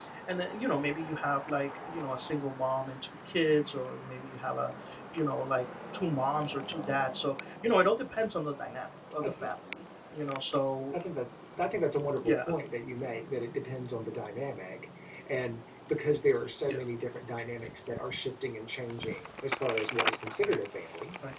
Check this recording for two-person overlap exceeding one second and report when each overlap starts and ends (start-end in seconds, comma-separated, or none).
none